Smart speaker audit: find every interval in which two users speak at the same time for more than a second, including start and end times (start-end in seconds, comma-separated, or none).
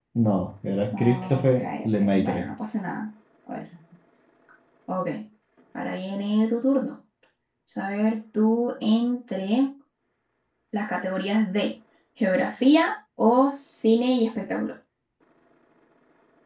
0.9-2.5